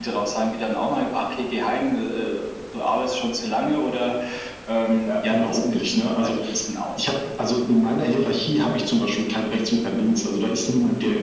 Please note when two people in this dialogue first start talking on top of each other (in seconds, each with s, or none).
5.1 s